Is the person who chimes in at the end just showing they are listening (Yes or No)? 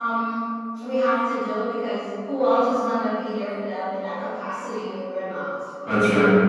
No